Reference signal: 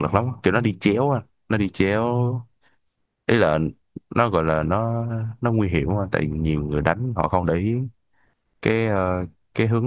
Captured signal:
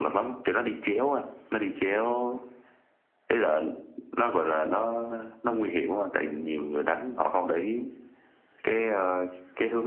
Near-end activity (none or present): none